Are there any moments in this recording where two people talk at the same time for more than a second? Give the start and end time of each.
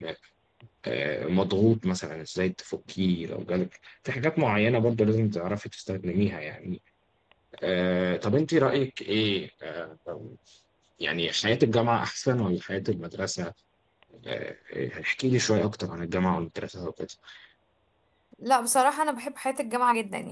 none

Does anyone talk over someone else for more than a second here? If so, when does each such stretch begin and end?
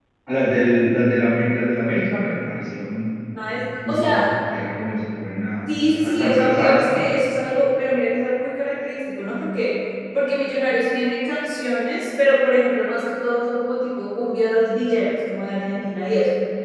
5.8-7.0

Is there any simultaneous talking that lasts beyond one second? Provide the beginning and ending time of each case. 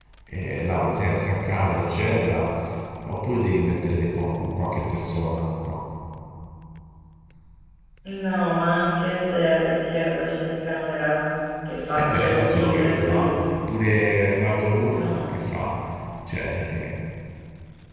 12.0-13.4

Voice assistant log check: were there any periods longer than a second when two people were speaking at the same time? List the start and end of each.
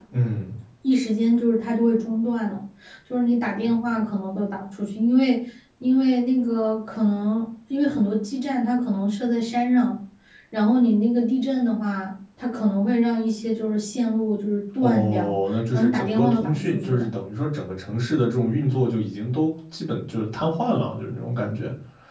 15.7-17.1

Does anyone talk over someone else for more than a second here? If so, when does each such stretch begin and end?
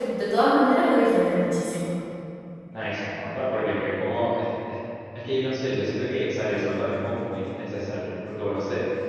none

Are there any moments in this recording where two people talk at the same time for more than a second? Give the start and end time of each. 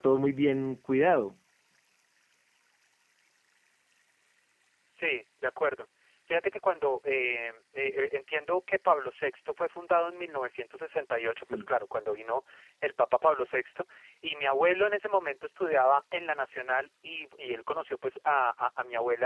none

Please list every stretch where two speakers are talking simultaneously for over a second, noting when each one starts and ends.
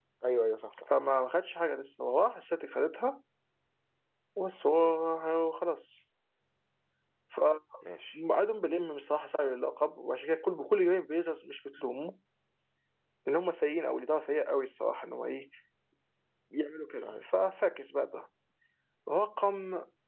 none

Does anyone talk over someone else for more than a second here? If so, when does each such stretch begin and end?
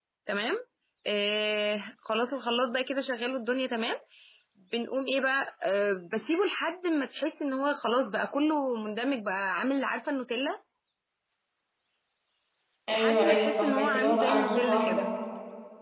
12.9-15.1

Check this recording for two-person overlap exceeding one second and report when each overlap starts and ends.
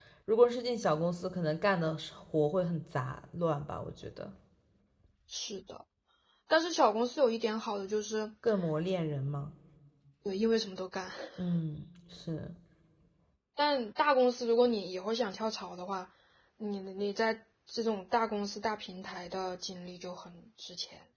none

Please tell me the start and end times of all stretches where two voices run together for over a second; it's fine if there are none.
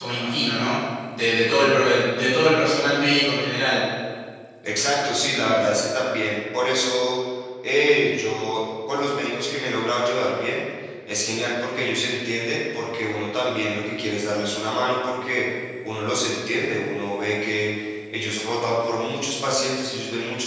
none

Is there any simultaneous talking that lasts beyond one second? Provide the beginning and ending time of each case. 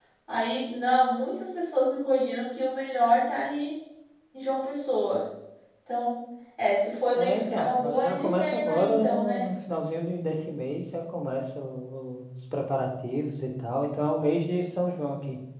7.2-9.4

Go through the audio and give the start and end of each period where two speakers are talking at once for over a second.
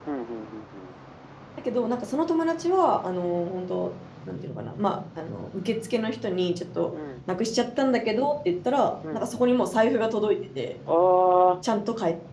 none

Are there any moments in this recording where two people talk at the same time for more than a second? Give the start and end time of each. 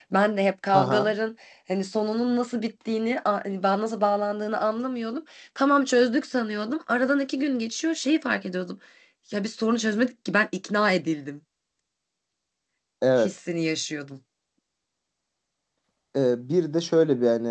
none

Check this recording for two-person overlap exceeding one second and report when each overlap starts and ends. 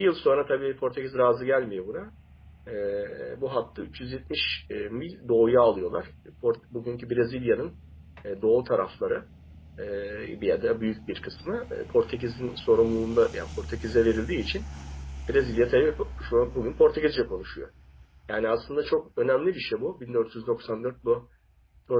none

